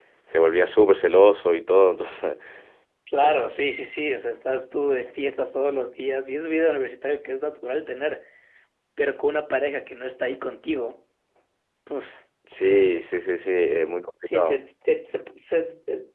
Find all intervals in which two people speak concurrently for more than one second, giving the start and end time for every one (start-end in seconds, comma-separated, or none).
none